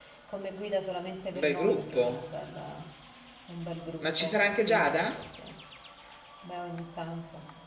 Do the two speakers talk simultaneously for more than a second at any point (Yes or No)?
Yes